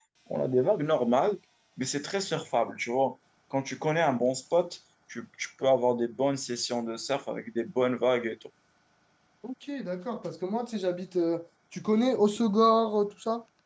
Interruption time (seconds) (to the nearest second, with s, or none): none